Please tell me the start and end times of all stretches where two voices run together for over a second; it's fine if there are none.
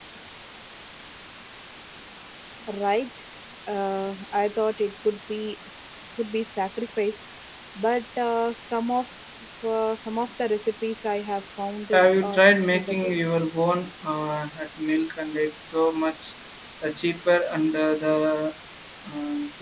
11.9-13.2

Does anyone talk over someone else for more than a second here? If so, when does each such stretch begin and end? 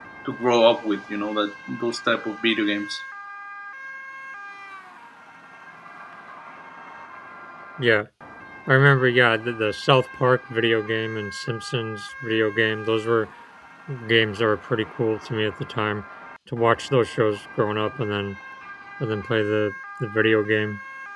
none

